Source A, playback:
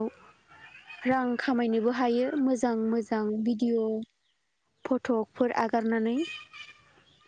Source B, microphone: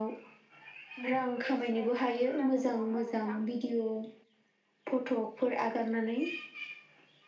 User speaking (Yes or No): Yes